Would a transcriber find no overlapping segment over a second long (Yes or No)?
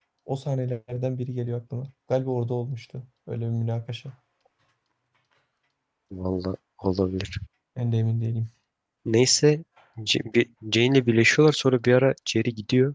Yes